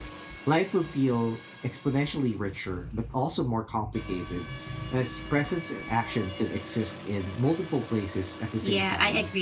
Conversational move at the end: taking over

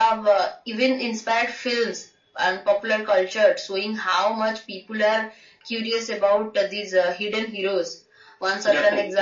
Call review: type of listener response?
listening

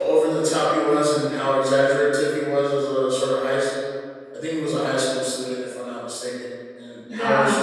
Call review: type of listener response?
listening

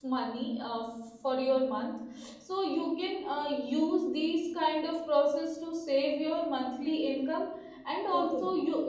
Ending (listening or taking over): listening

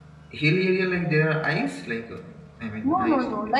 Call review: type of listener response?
taking over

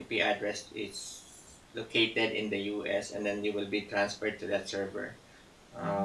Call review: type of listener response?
taking over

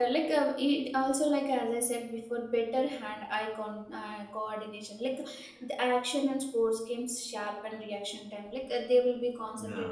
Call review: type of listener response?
listening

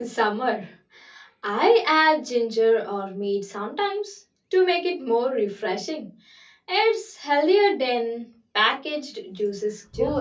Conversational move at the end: taking over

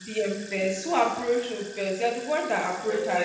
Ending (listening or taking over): taking over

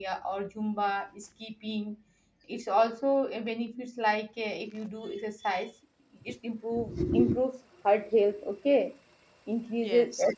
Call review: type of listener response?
listening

